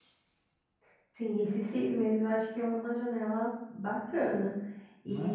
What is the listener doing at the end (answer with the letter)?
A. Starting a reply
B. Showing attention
B